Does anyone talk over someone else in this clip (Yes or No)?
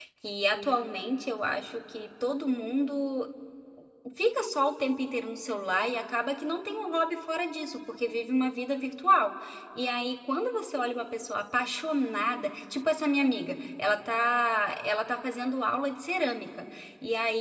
No